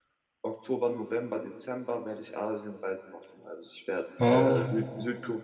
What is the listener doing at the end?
listening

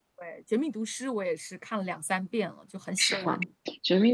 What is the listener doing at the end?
taking over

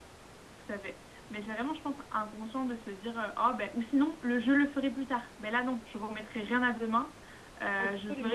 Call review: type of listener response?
listening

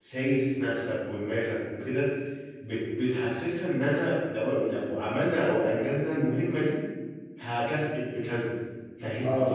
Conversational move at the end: listening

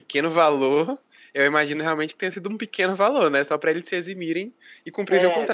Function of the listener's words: taking over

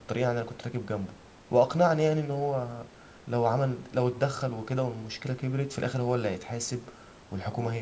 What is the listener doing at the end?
listening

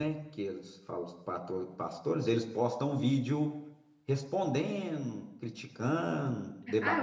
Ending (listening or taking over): taking over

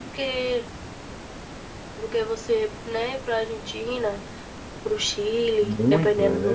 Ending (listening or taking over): taking over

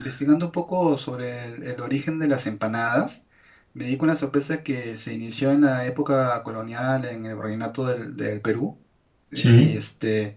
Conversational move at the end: listening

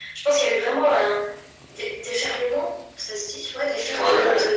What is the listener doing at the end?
listening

